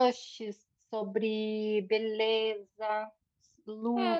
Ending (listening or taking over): taking over